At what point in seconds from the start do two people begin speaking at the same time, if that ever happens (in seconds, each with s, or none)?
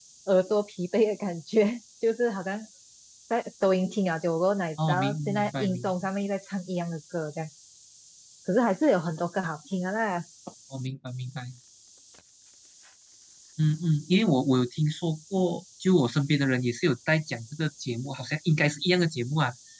4.8 s